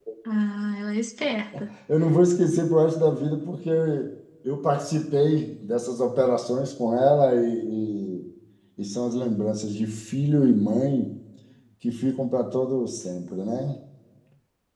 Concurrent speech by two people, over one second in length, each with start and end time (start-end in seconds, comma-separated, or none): none